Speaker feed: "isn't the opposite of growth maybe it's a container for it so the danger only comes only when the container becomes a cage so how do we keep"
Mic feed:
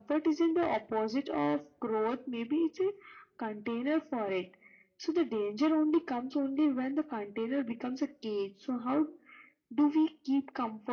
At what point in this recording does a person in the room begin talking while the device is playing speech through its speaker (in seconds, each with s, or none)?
none